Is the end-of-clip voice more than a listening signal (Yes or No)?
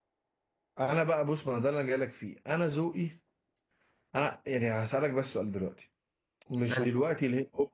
No